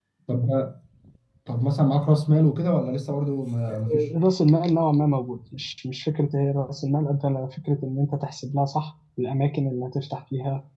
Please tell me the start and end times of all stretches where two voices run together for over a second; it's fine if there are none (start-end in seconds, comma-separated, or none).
none